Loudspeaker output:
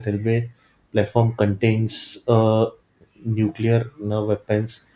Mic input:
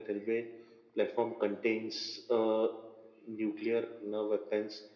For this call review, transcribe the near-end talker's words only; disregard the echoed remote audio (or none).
none